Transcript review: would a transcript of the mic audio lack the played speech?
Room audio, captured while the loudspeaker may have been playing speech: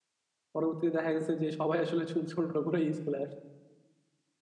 Yes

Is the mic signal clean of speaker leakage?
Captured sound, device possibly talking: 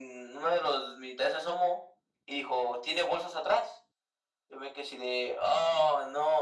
No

